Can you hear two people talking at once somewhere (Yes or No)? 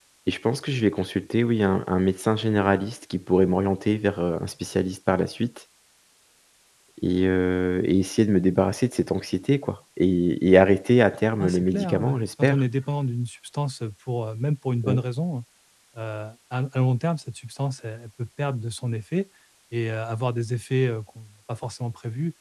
Yes